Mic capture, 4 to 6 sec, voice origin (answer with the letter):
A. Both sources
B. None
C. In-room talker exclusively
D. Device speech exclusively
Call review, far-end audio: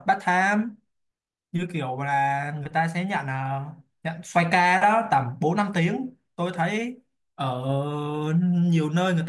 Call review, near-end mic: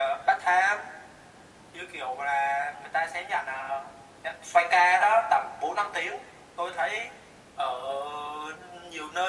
D